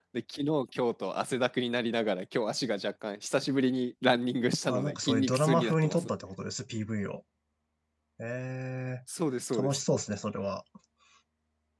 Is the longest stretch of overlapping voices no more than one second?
No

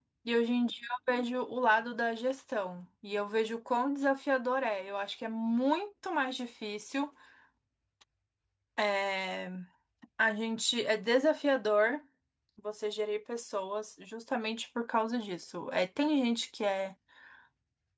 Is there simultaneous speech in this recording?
No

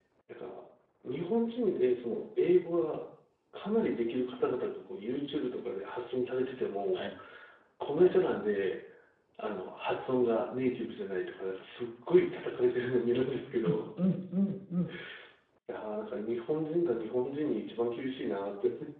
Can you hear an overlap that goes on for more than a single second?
No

